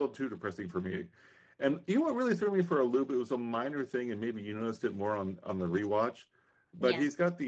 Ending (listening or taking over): listening